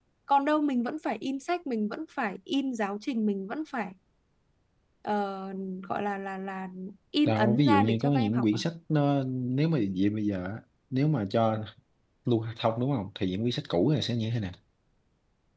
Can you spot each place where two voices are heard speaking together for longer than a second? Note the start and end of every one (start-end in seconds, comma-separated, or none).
7.2-8.6